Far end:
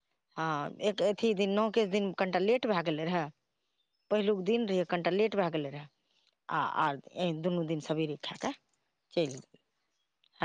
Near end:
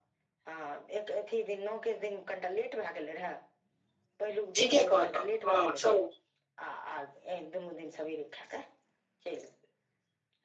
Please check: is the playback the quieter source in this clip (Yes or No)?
Yes